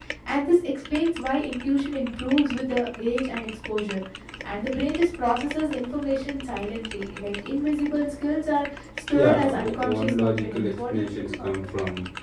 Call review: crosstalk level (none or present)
present